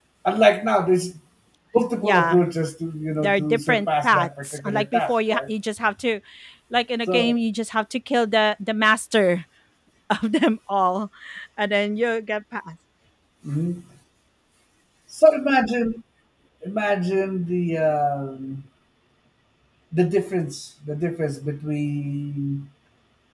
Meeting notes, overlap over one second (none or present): present